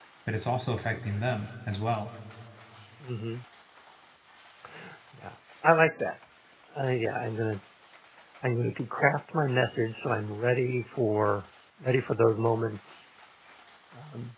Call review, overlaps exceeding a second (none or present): none